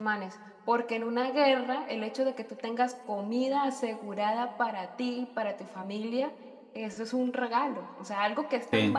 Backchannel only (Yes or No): Yes